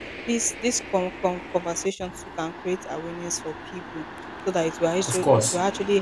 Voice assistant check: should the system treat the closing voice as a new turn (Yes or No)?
No